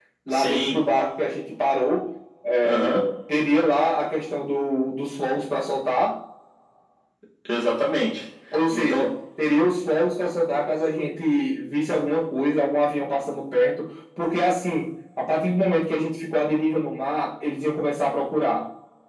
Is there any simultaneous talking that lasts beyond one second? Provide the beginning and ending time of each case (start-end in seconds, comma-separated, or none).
none